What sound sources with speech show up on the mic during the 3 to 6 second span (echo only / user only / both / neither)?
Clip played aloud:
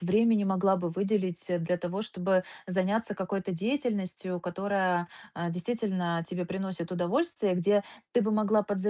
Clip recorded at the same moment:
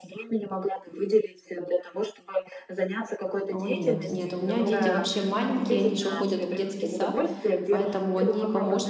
both